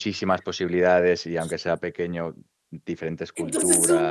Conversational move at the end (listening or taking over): taking over